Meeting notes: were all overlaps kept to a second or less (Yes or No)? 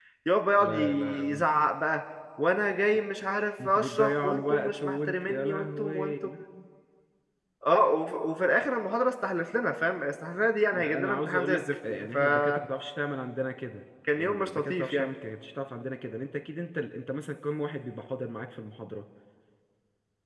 No